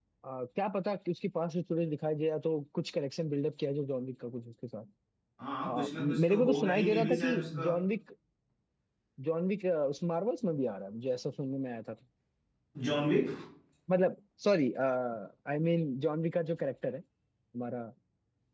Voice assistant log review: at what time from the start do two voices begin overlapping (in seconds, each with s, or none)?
5.7 s